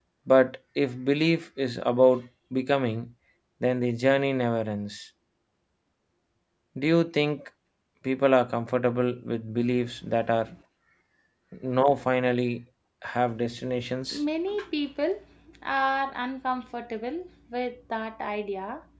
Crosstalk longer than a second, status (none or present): none